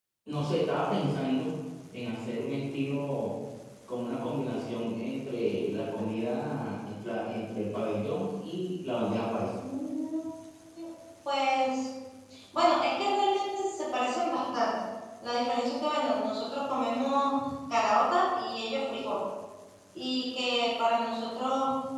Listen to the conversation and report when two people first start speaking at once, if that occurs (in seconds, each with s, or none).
none